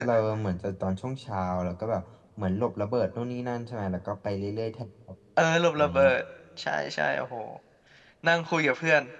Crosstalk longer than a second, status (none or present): none